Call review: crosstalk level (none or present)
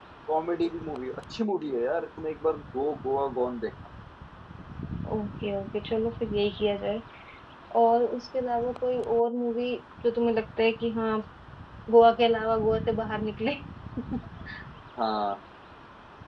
none